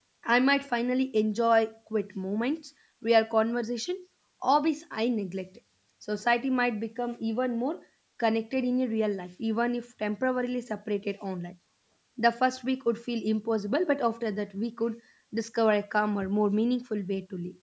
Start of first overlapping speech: none

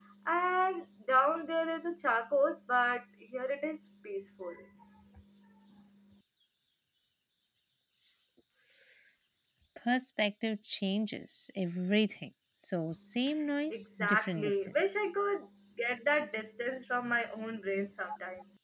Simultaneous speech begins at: 13.7 s

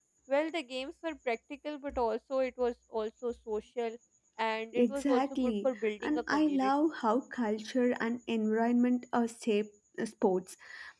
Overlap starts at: 4.7 s

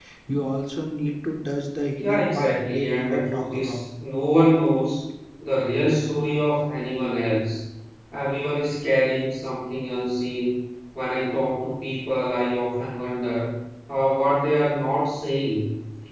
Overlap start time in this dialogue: 2.0 s

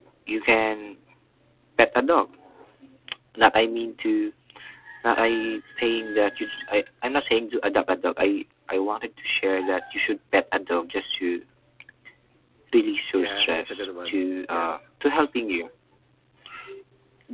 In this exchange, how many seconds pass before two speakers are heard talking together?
13.2 s

